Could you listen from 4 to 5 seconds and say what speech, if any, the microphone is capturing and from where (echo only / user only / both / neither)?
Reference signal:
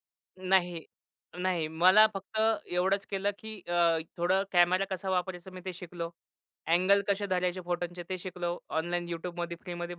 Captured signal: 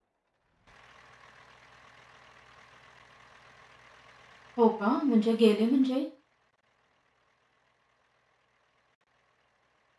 user only